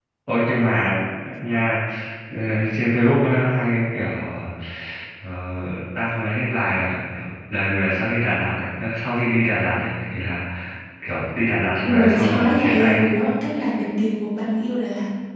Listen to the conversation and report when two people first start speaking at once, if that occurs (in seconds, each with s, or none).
11.8 s